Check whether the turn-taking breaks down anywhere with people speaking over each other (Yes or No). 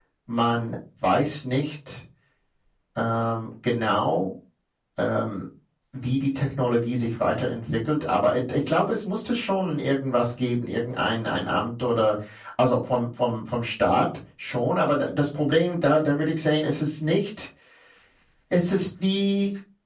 No